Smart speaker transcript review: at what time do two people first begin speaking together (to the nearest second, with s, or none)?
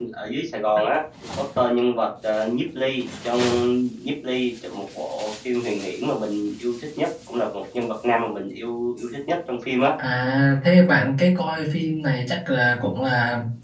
none